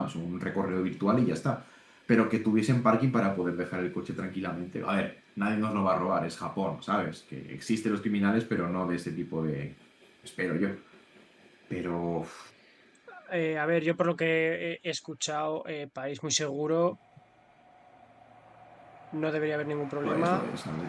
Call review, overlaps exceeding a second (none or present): none